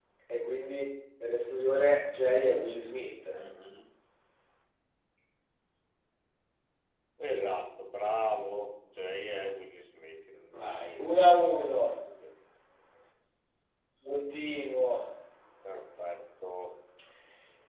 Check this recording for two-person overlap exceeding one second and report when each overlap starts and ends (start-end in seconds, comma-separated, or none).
10.5-11.9